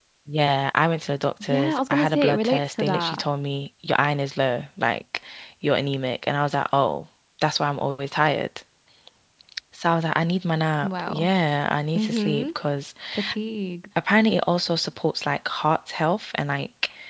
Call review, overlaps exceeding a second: present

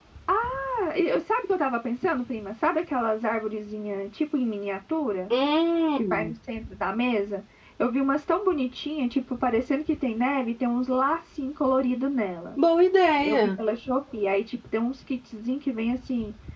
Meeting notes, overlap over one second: none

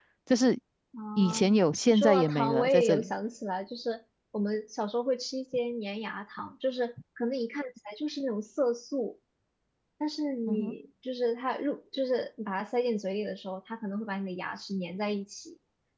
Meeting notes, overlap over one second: present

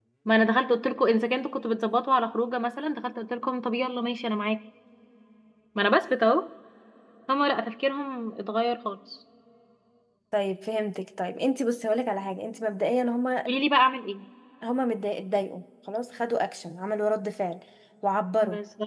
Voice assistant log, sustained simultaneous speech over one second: none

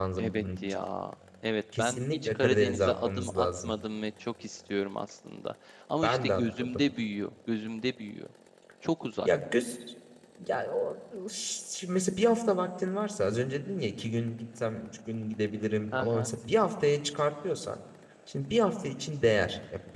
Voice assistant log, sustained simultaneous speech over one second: present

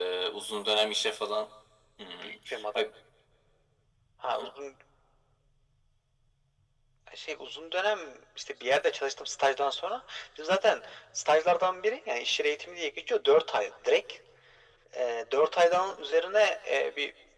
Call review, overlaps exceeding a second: none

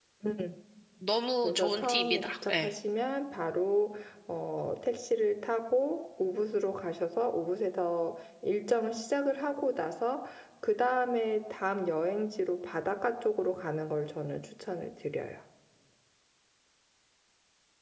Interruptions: present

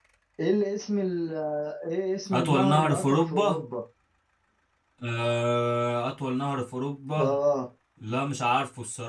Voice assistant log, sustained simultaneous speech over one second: present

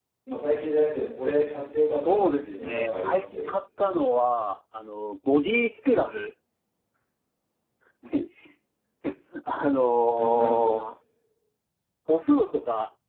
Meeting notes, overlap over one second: present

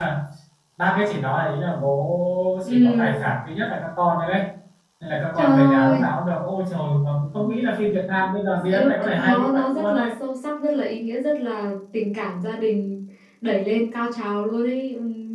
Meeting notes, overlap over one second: present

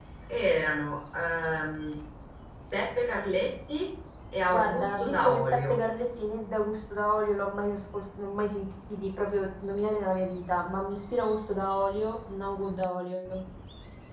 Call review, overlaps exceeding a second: present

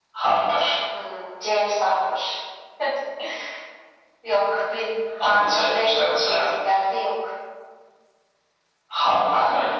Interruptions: present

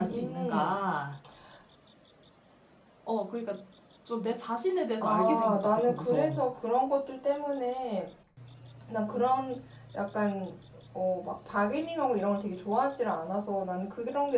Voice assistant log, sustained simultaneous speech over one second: present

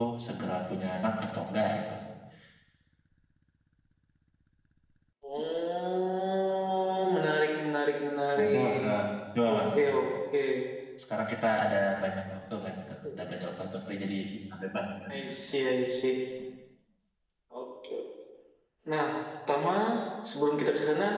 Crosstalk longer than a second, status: none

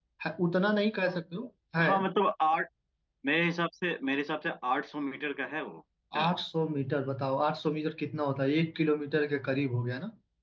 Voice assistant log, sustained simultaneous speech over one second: none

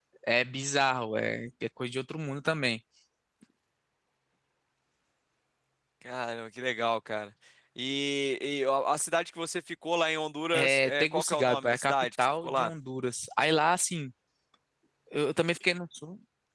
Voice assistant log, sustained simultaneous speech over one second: present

